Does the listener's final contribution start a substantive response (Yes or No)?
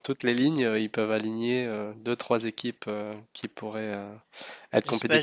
Yes